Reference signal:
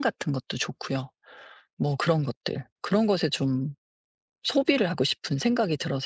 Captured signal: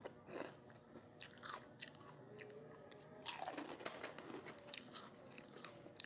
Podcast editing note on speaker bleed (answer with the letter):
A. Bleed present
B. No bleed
B